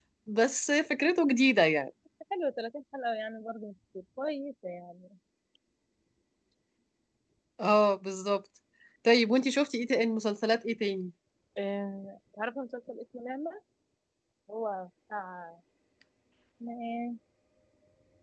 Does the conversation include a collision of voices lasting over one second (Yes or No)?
No